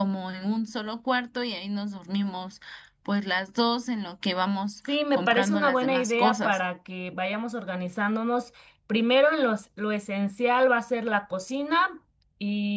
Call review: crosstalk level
present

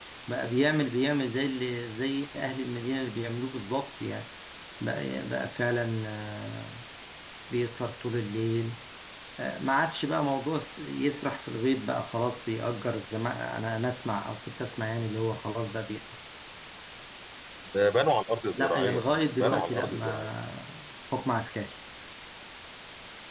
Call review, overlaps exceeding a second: present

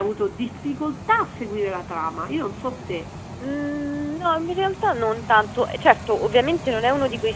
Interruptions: none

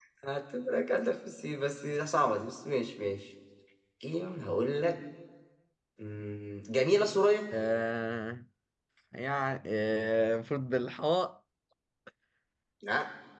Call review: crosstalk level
none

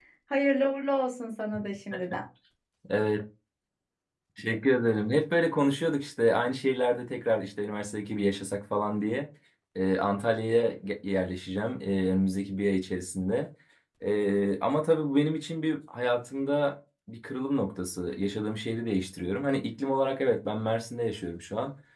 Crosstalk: none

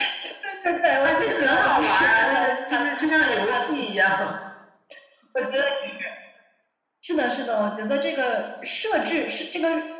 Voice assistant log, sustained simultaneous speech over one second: present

